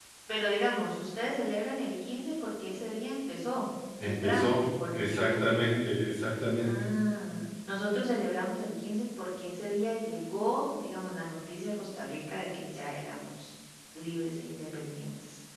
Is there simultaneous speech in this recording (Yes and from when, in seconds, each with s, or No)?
Yes, from 4.0 s